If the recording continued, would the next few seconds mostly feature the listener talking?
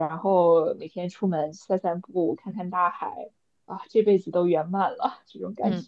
Yes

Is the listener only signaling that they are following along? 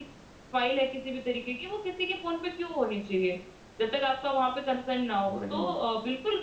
Yes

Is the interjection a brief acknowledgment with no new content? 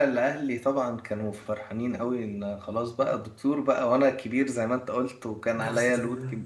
Yes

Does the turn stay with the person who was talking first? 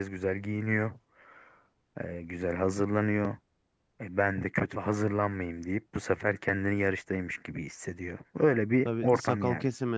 No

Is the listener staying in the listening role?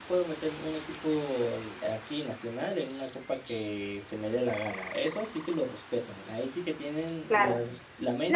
No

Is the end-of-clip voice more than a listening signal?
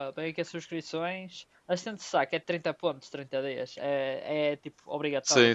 Yes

